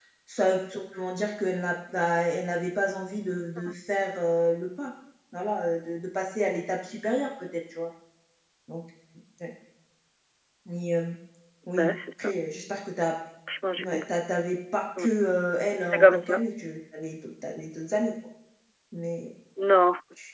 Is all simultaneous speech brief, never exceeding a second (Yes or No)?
Yes